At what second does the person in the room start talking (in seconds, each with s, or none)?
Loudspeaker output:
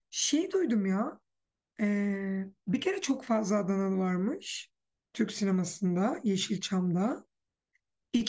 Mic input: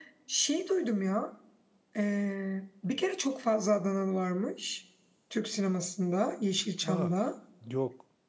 6.9 s